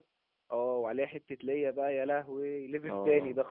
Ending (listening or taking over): taking over